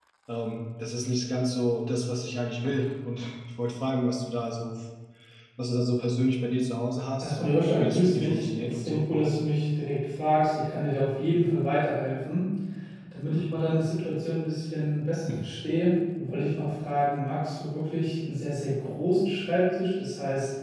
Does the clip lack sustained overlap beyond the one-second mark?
No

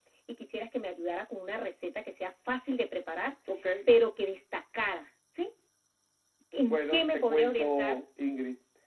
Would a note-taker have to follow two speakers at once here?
Yes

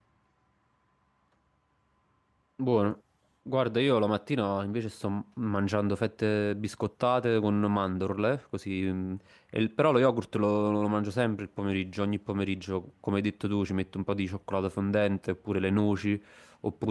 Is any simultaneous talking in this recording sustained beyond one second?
No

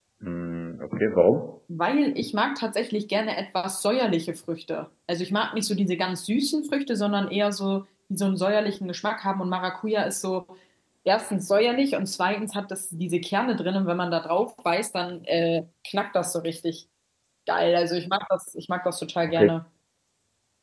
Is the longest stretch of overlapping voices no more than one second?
Yes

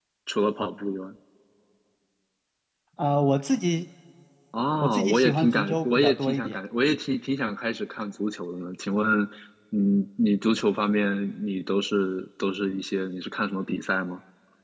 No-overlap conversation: No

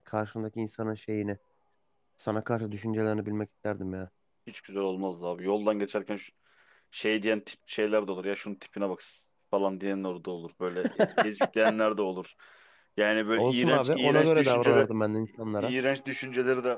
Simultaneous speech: Yes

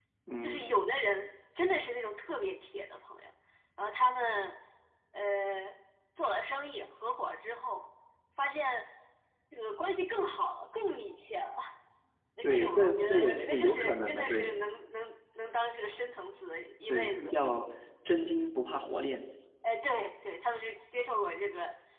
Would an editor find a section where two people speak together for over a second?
Yes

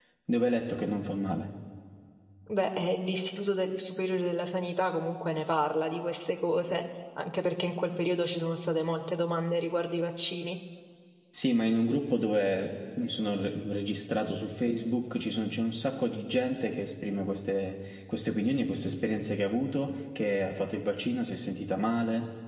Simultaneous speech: No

